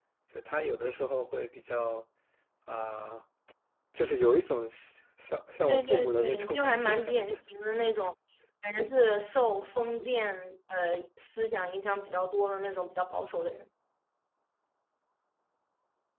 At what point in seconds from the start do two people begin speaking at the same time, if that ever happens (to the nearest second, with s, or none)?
6 s